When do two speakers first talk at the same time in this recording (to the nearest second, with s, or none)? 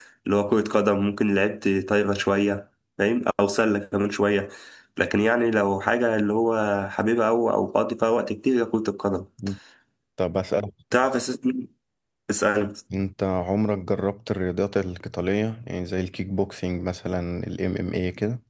none